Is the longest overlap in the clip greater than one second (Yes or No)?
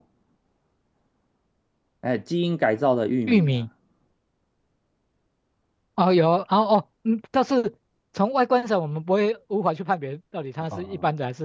No